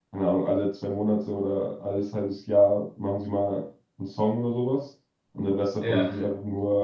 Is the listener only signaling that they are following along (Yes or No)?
Yes